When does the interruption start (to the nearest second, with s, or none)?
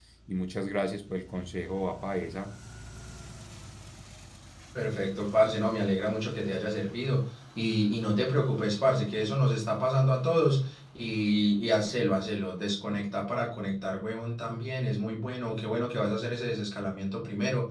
none